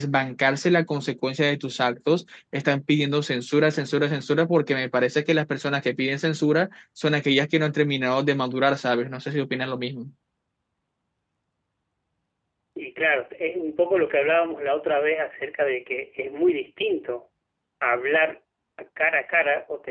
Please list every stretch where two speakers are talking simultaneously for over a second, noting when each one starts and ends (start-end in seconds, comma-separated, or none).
none